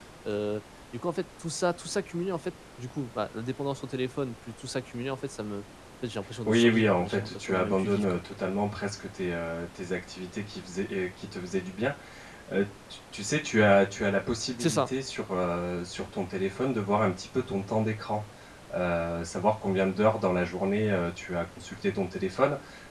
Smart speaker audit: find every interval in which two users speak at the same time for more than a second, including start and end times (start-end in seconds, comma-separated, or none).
6.5-8.2